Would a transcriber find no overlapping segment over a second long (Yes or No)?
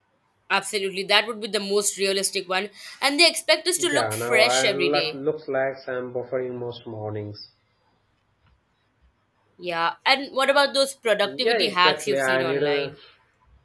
No